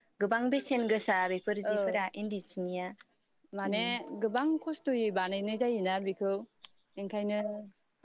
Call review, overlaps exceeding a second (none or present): none